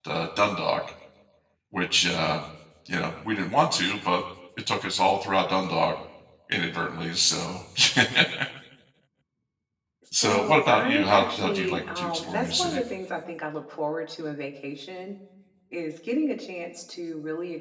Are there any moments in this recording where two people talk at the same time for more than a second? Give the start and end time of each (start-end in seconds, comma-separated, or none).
10.1-12.8